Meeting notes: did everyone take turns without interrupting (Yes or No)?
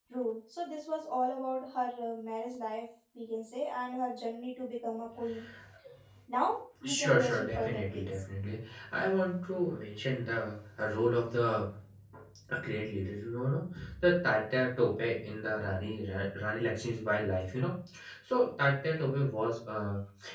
No